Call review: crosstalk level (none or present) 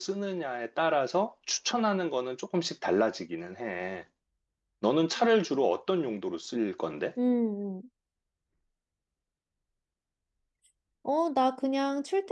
none